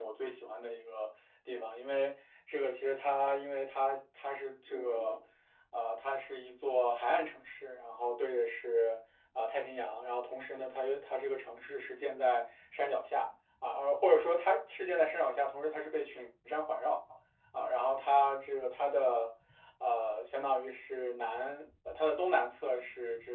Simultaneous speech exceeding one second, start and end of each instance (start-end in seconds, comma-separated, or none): none